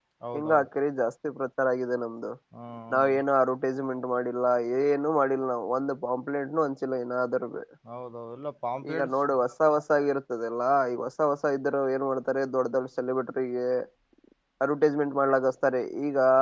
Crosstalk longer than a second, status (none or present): none